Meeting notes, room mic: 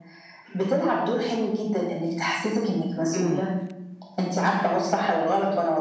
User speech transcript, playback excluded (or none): امم.